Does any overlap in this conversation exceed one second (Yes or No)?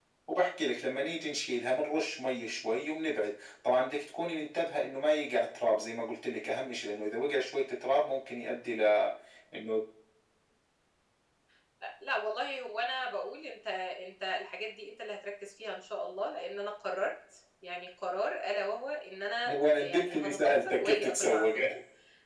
Yes